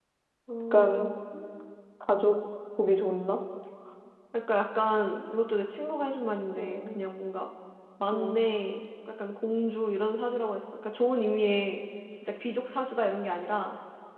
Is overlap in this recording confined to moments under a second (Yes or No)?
Yes